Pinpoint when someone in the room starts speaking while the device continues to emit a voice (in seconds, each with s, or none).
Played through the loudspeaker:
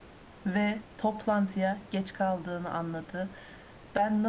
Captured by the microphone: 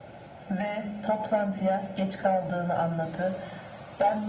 none